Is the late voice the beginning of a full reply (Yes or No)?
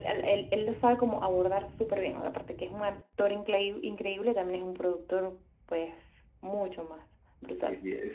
Yes